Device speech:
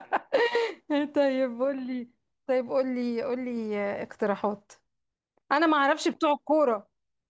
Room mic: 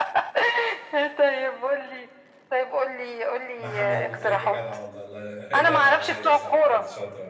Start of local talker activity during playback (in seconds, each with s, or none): 3.6 s